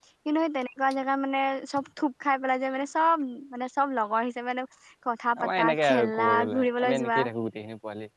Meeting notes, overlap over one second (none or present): present